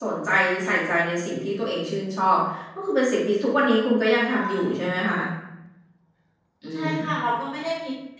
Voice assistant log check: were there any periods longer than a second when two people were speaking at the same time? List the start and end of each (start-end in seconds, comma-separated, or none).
none